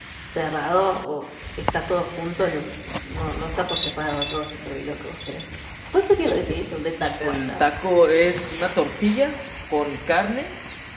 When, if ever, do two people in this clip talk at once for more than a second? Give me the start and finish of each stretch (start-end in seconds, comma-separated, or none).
none